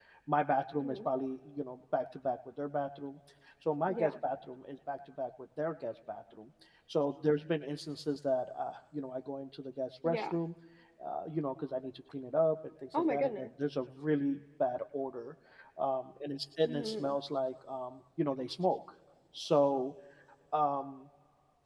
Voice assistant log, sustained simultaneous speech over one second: none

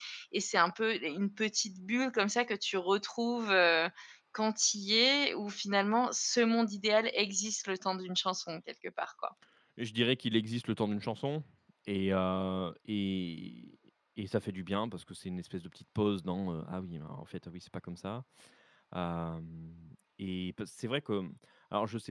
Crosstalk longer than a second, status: none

